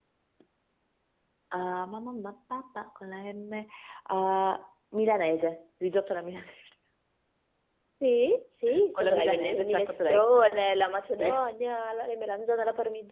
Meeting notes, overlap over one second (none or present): present